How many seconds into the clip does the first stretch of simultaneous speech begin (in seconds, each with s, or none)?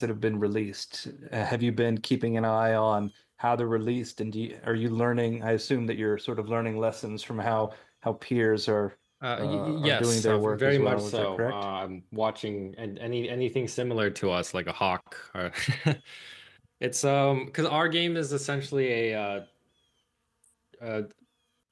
9.4 s